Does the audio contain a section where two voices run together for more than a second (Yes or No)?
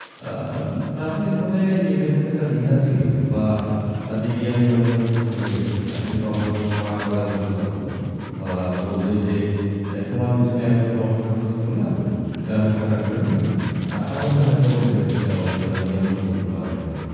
No